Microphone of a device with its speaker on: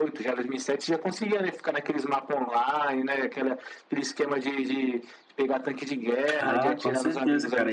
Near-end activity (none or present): present